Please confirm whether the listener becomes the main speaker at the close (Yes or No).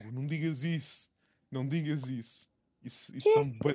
No